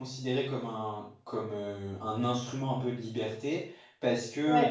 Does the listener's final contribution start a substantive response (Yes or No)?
No